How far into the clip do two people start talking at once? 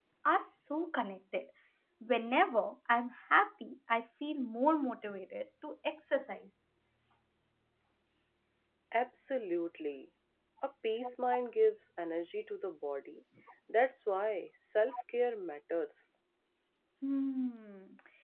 none

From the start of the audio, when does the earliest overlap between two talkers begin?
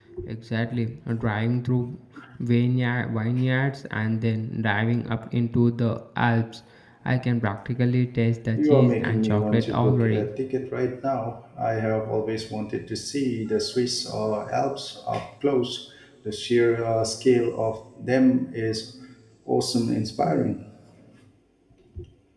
8.6 s

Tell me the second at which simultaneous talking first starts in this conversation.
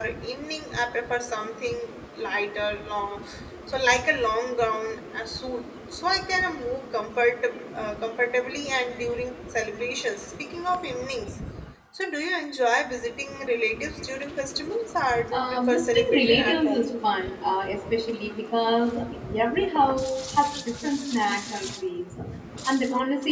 15.3 s

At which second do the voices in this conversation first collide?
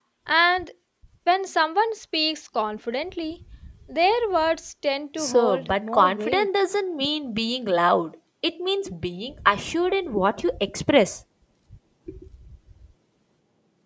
5.2 s

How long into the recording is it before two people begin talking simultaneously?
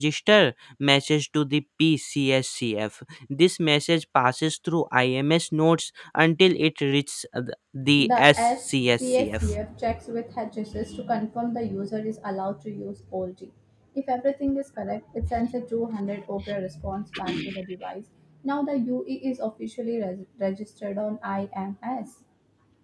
8.1 s

